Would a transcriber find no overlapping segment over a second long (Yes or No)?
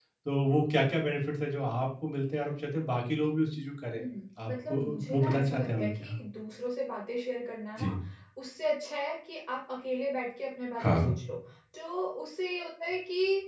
No